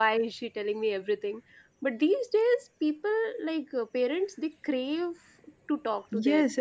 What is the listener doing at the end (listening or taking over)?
taking over